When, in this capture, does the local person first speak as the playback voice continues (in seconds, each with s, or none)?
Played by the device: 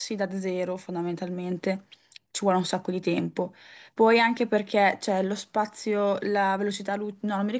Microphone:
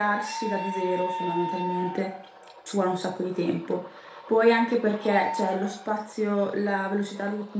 none